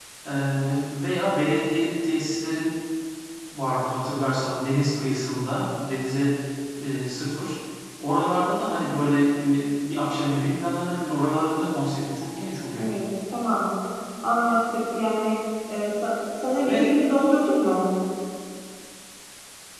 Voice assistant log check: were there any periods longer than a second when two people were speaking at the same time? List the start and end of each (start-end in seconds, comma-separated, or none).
none